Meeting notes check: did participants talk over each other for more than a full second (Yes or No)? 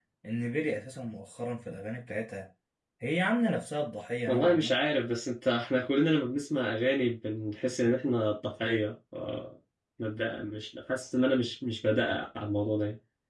No